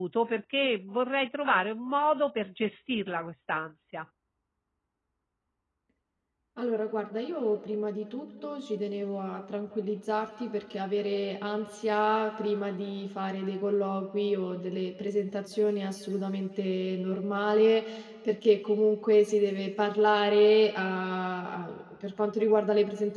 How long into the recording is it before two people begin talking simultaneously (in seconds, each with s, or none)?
none